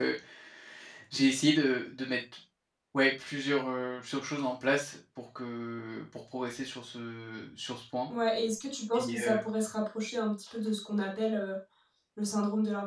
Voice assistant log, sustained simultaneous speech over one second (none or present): none